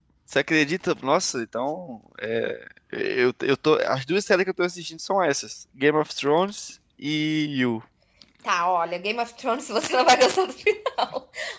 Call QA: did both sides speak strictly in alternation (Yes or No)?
Yes